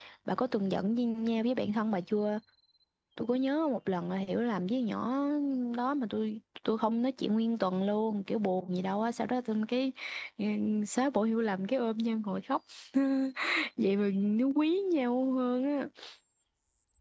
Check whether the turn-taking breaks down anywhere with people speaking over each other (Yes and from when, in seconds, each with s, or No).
No